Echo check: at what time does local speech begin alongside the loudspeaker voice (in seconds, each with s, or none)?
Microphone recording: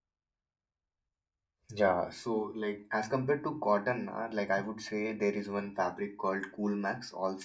1.7 s